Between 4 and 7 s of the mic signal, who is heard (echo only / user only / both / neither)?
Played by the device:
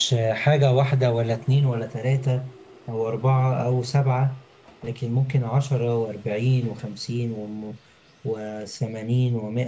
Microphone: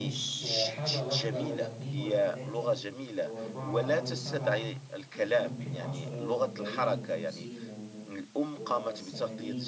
both